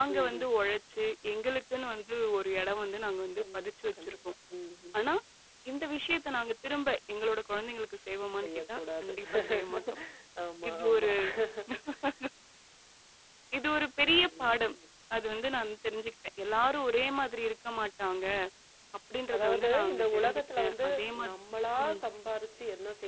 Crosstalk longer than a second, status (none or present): present